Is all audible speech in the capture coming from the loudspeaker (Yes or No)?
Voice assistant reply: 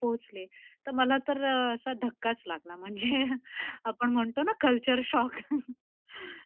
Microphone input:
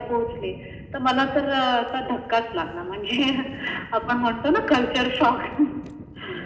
Yes